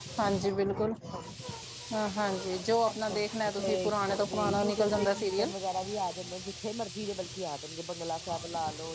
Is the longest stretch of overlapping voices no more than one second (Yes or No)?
No